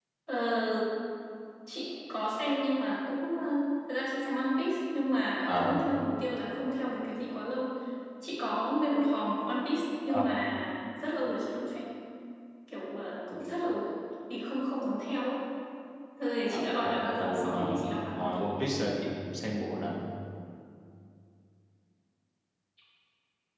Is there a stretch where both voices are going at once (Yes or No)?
Yes